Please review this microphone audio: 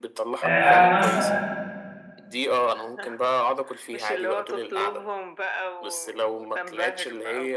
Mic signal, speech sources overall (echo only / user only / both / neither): both